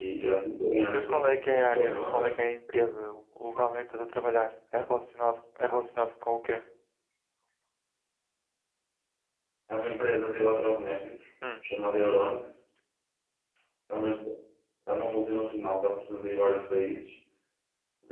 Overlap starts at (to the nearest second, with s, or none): 1 s